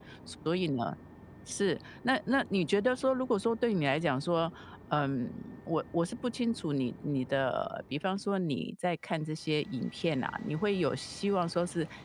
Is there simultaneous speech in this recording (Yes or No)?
No